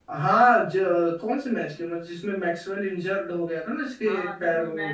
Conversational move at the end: taking over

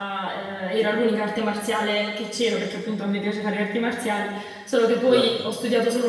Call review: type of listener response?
listening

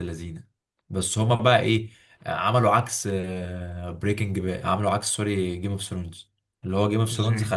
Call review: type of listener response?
listening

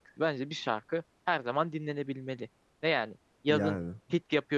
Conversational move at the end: listening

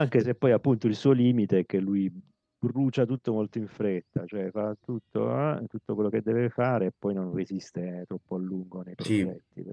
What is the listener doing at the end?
taking over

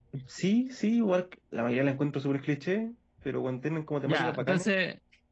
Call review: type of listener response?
taking over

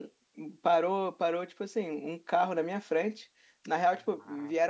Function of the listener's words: listening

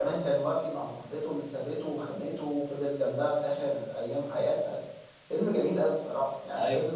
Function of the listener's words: listening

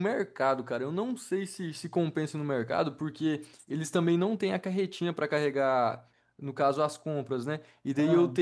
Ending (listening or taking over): listening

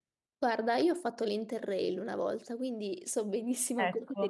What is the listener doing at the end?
listening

